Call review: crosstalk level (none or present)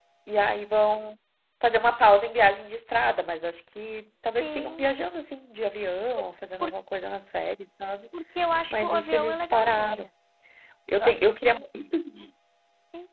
present